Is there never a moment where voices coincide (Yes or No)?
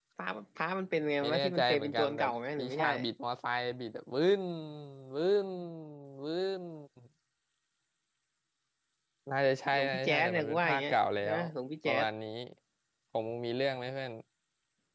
No